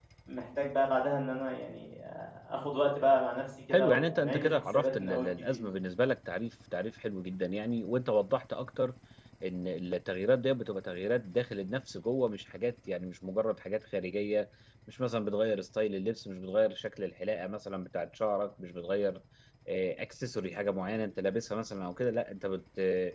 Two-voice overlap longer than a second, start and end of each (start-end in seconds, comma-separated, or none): 3.7-5.6